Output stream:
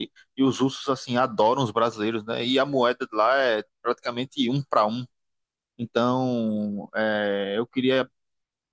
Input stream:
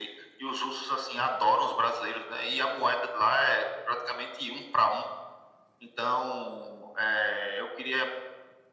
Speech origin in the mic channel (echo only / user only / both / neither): echo only